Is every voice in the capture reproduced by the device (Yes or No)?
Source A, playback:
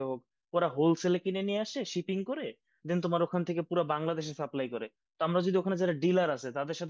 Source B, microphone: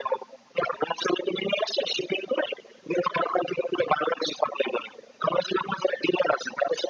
Yes